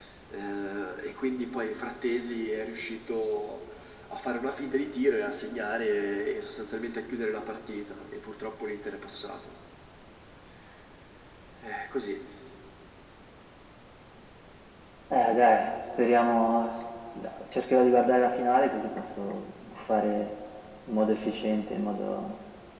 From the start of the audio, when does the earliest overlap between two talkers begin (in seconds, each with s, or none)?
none